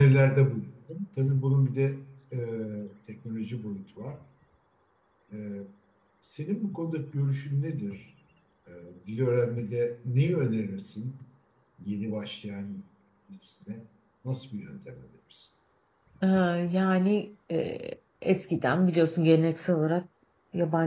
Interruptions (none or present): none